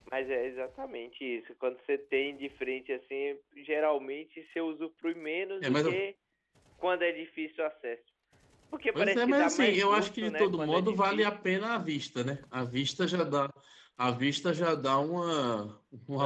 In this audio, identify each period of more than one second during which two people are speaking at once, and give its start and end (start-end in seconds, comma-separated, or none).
8.9-11.4